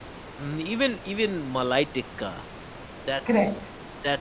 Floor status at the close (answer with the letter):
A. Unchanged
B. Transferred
A